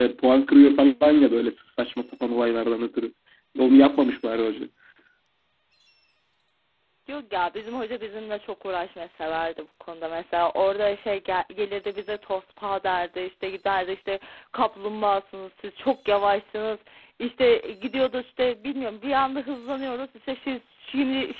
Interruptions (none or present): none